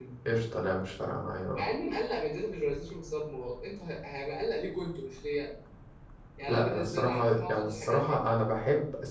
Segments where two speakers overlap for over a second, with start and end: 6.5-8.2

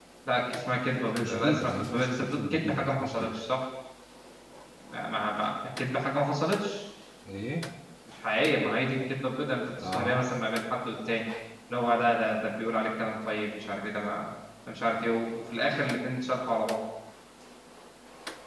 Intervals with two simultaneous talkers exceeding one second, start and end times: 1.0-3.4

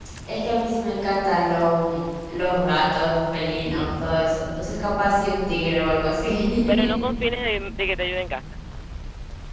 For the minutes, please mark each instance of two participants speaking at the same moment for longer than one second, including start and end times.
none

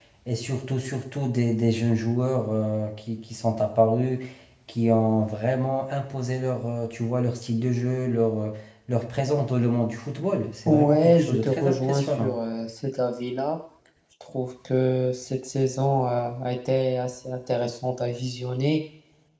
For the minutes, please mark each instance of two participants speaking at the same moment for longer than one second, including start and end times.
10.7-12.4

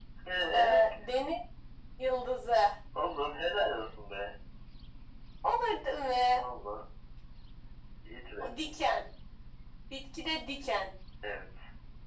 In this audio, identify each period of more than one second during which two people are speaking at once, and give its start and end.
none

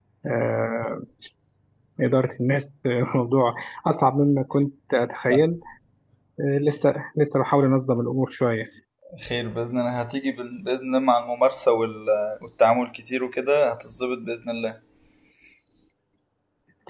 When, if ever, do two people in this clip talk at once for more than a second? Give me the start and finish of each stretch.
none

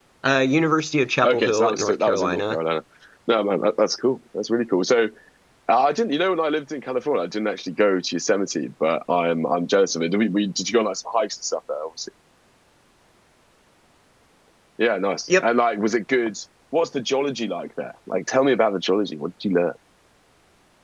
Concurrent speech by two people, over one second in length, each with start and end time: 1.2-2.6

